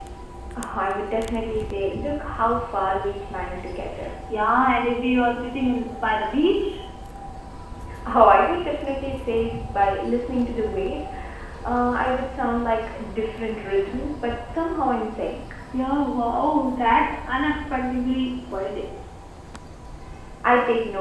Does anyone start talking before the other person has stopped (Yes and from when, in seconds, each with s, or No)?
No